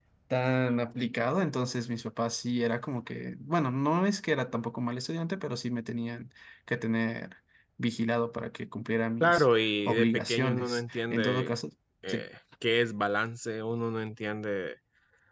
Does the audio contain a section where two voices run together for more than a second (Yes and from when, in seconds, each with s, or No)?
Yes, from 9.2 s